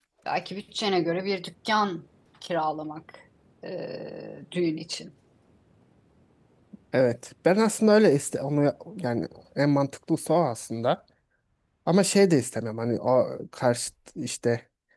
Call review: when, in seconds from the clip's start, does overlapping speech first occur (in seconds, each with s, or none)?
none